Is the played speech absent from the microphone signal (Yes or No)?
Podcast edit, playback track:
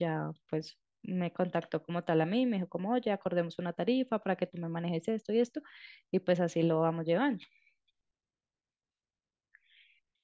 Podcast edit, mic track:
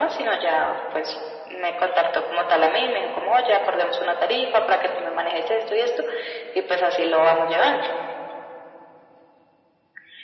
No